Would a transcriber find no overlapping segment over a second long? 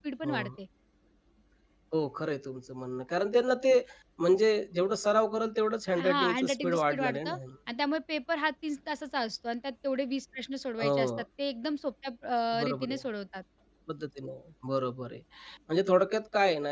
No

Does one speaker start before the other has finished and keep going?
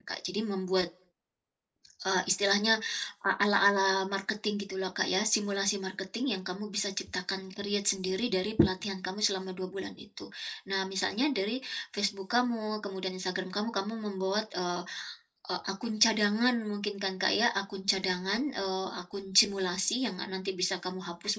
No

